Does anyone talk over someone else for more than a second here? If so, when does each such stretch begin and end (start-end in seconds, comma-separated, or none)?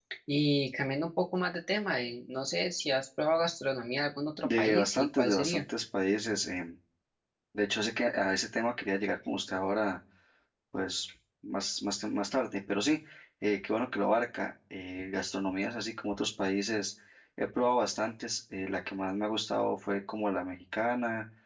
4.4-5.6